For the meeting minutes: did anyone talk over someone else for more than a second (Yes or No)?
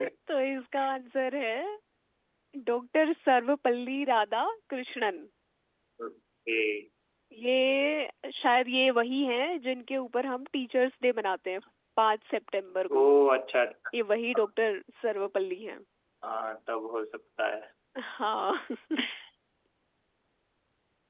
No